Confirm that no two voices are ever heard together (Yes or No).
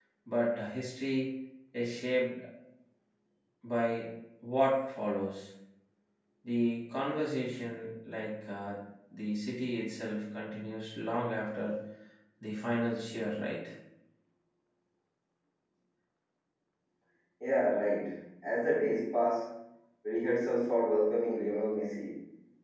Yes